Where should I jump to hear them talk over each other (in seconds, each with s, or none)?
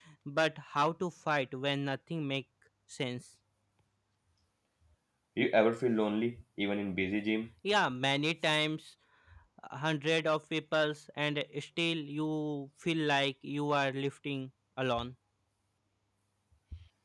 none